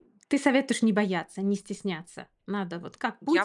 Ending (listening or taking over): taking over